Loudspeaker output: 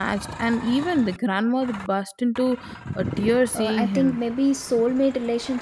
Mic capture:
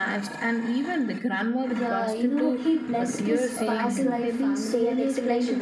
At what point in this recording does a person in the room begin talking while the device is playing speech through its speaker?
1.7 s

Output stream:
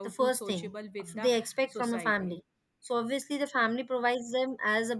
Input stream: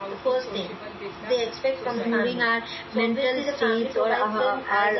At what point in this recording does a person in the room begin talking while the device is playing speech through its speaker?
2.0 s

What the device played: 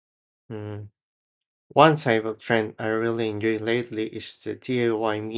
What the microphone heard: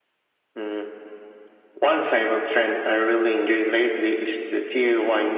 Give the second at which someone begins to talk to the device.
none

